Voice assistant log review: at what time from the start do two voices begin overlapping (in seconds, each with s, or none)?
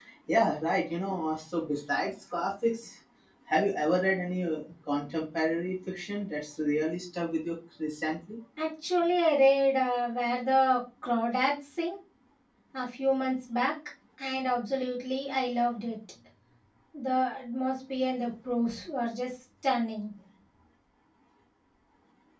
none